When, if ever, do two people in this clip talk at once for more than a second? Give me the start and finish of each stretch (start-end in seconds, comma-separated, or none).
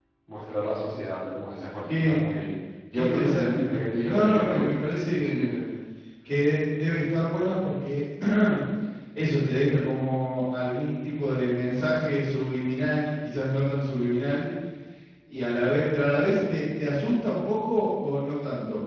2.9-4.8